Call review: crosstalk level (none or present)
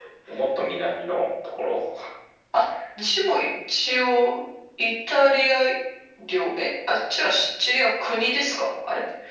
none